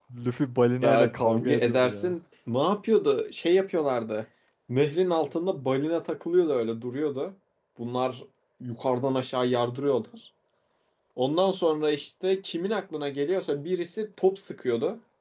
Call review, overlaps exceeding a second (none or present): present